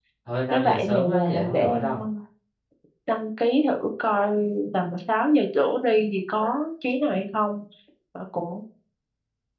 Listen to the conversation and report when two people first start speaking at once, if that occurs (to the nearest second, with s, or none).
1 s